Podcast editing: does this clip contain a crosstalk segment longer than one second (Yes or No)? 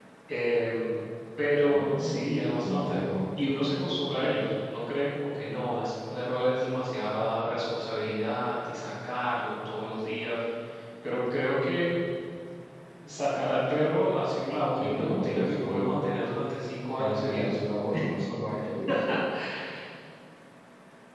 Yes